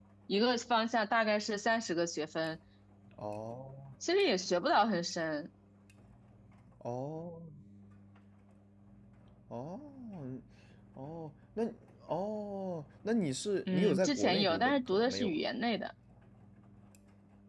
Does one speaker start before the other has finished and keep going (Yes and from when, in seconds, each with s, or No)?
Yes, from 13.7 s